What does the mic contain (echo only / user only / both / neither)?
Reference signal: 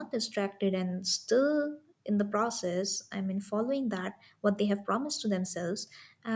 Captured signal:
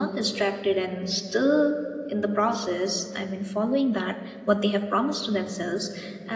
echo only